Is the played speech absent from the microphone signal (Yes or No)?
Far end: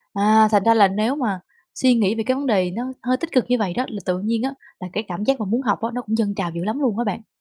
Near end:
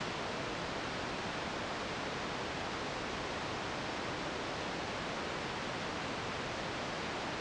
Yes